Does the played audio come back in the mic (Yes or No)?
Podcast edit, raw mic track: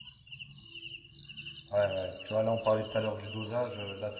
No